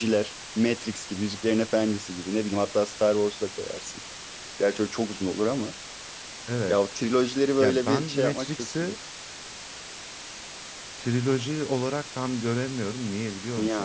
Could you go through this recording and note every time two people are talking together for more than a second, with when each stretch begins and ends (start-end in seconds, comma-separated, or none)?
7.6-8.9